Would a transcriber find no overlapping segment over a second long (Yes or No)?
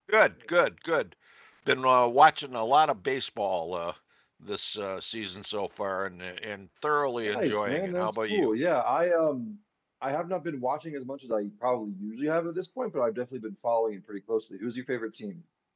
No